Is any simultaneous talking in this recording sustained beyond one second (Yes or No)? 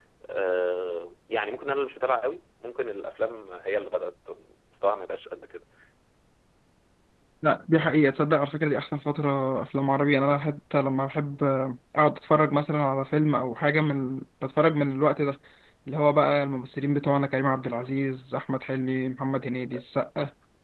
No